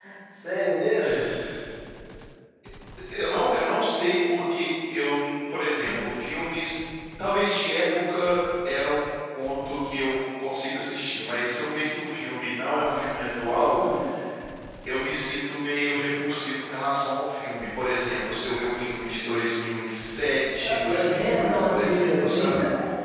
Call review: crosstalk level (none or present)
present